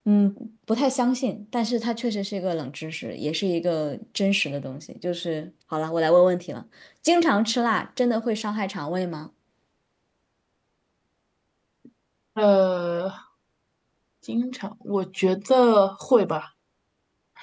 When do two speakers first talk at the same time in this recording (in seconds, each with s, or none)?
none